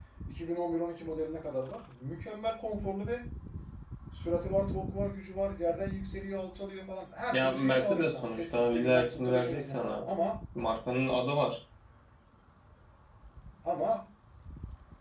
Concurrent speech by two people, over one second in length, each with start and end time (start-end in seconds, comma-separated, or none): 7.3-10.1